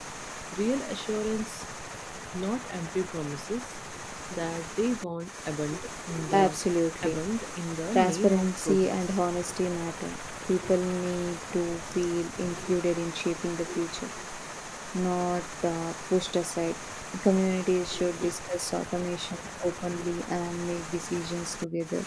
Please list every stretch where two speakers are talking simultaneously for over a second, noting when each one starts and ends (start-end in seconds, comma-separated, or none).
7.9-9.2